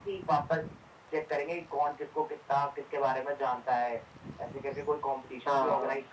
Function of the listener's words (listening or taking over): listening